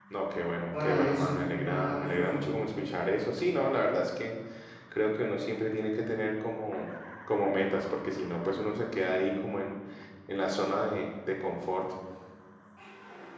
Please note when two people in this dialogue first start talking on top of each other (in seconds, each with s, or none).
0.7 s